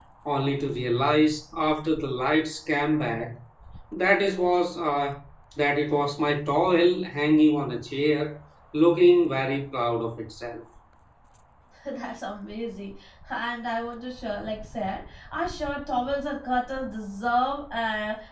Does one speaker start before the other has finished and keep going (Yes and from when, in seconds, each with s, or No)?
No